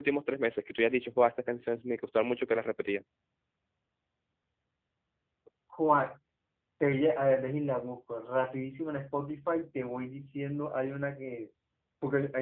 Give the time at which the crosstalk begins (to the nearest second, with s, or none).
none